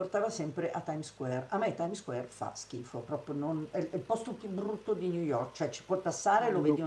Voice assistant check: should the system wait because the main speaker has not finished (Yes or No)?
Yes